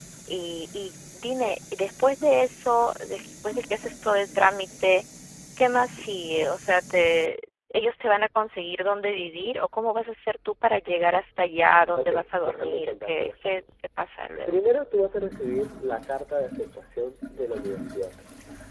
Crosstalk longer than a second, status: present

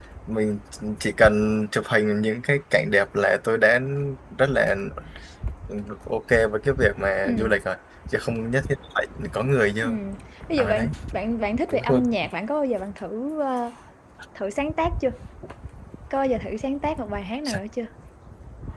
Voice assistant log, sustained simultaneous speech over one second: none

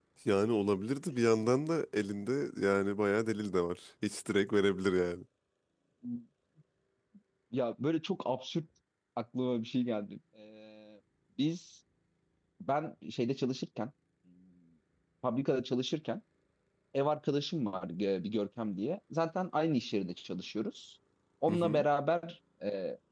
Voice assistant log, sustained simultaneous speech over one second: none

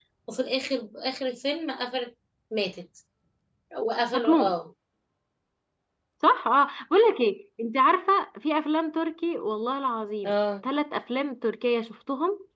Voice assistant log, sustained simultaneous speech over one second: none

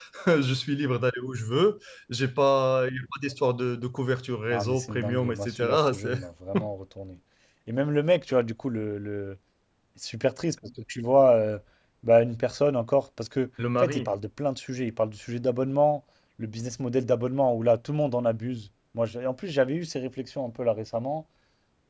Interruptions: present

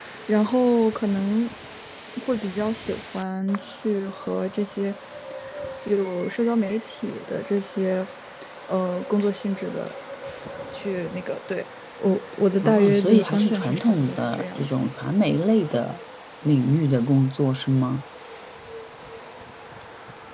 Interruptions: present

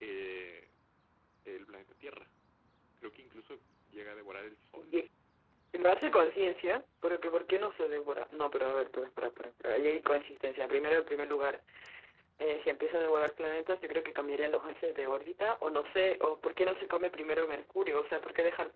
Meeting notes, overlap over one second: none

